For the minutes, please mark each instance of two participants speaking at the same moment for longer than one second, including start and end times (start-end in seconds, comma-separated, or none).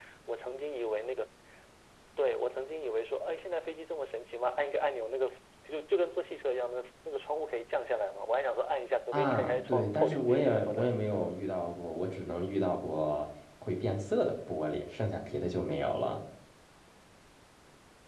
9.1-10.9